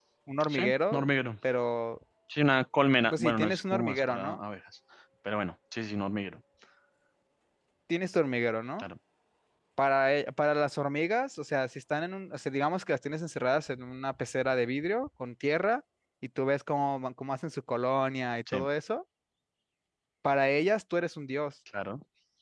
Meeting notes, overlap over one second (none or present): present